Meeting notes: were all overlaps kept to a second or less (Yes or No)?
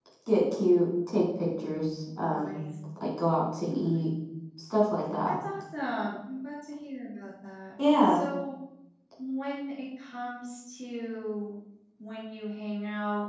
Yes